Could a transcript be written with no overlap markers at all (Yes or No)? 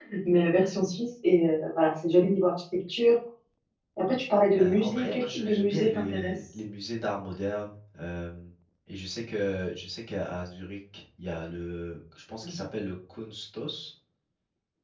No